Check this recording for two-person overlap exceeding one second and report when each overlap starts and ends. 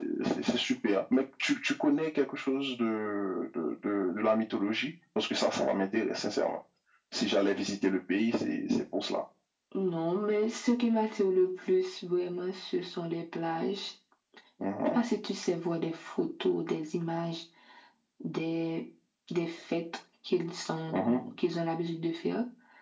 none

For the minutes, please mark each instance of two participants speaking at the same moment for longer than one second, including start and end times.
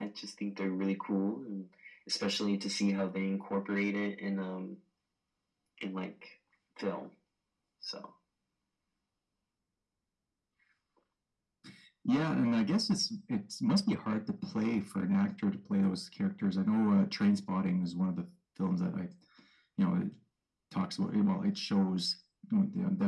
none

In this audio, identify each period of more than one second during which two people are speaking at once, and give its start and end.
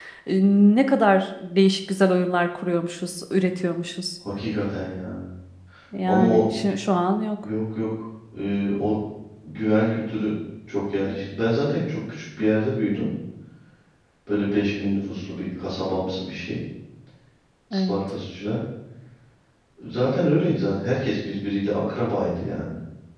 none

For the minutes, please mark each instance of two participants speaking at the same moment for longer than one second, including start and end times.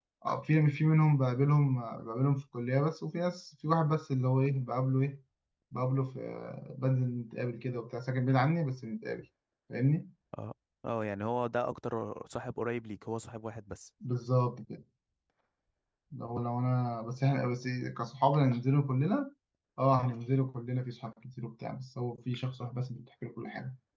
none

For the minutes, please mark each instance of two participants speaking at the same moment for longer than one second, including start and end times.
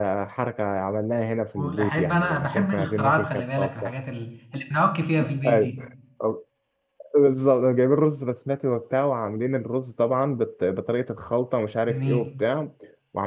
1.6-3.9

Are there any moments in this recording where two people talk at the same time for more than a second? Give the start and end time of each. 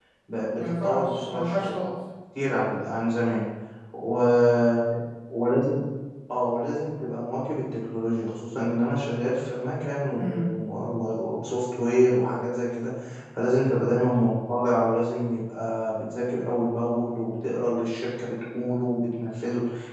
0.6-1.8

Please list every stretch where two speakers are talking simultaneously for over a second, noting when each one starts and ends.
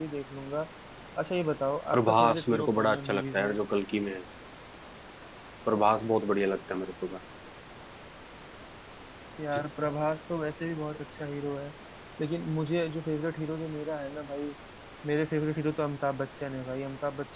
1.9-3.6

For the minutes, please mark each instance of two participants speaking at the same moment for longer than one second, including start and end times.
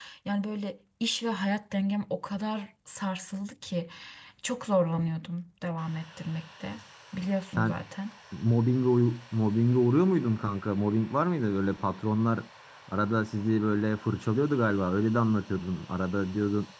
none

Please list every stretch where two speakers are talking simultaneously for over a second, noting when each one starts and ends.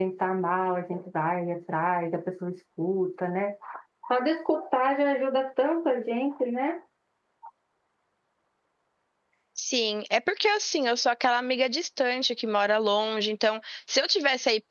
none

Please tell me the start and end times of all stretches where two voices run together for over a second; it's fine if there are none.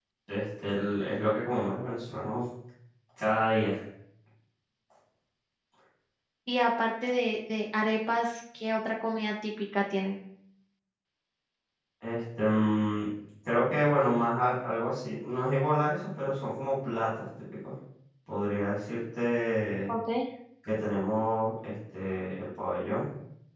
none

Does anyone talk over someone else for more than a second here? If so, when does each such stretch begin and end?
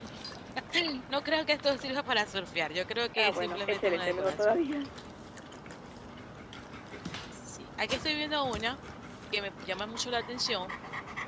3.1-4.5

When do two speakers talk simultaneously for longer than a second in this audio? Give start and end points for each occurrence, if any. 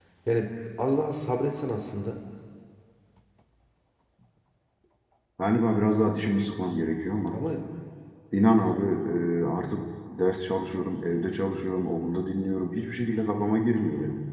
none

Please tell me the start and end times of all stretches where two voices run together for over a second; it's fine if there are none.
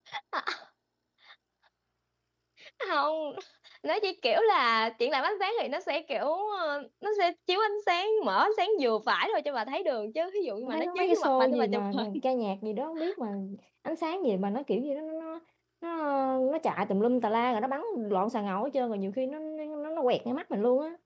10.6-12.1

